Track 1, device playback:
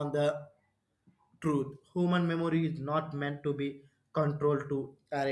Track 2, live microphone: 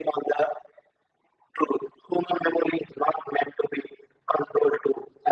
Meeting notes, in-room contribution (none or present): none